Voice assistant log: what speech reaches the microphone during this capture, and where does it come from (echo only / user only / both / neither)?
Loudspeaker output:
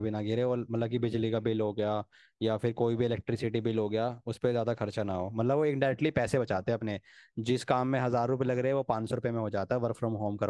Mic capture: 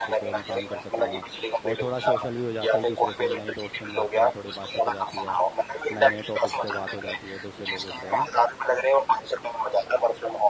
both